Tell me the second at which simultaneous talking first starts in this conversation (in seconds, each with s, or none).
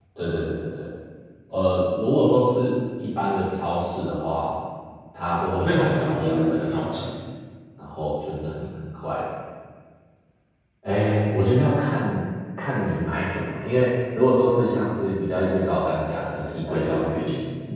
5.6 s